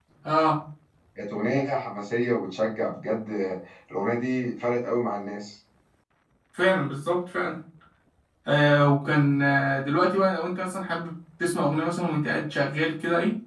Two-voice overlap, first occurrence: none

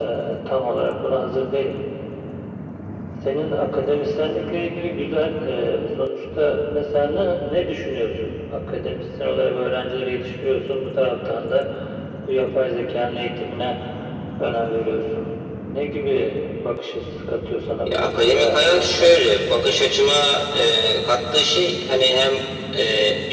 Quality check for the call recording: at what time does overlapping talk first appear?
17.9 s

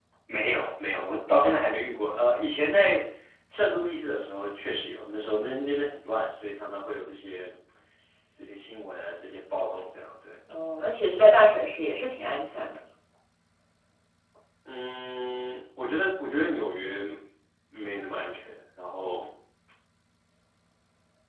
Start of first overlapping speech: none

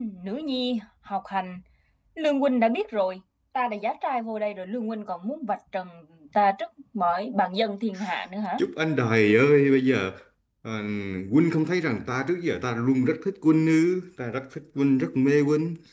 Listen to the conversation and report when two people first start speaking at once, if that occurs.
none

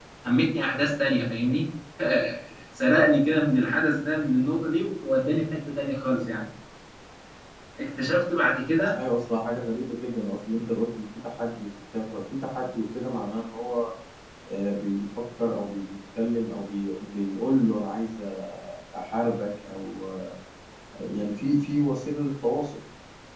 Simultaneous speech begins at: none

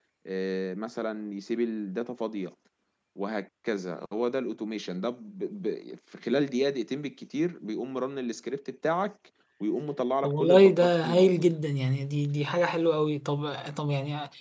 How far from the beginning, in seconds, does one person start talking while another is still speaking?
10.2 s

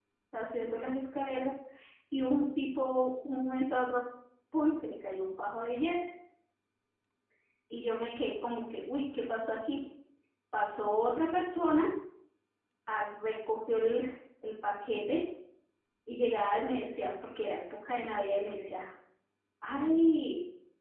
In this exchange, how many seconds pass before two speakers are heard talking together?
none

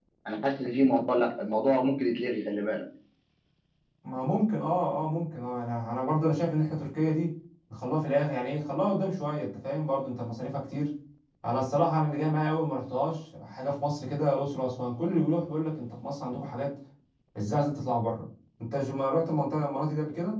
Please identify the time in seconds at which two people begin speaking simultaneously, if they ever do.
none

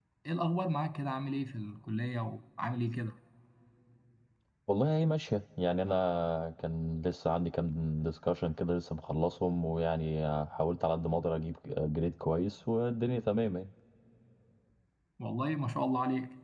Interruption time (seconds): none

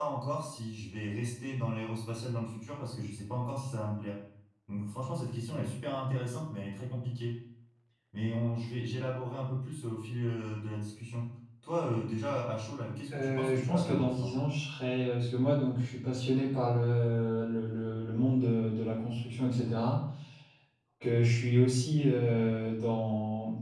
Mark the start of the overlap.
13.1 s

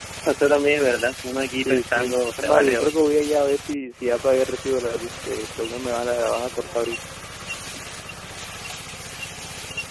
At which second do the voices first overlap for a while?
1.6 s

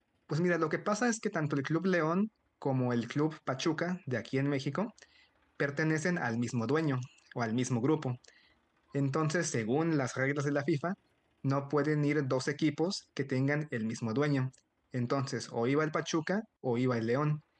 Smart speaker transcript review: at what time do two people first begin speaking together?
none

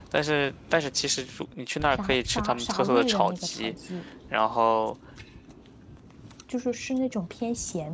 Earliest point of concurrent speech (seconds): 1.9 s

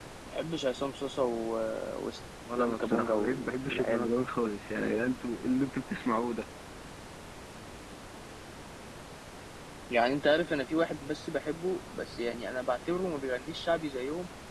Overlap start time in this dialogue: 2.6 s

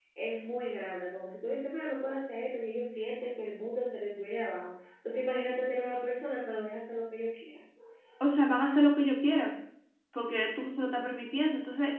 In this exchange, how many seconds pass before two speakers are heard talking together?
none

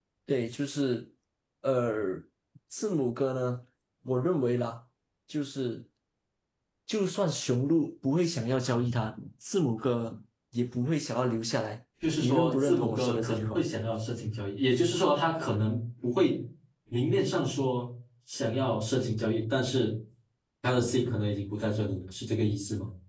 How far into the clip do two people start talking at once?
12.0 s

